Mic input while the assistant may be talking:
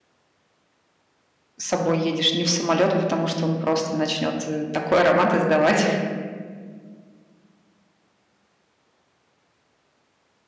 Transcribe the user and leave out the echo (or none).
с собой едешь, не в самолет, потому что он просто начнет э, такой аромат издавать.